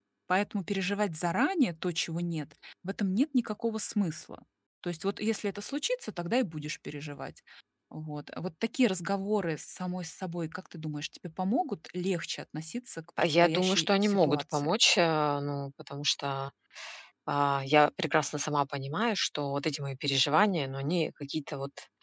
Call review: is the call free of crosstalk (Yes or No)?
No